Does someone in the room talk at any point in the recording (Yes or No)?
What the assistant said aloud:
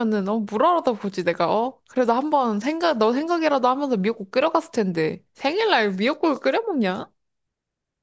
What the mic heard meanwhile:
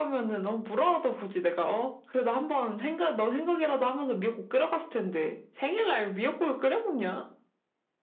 No